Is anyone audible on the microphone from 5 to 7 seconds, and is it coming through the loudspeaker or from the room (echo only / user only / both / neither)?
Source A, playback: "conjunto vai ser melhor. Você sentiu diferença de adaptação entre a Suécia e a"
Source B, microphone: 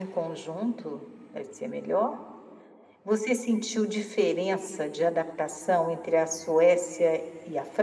echo only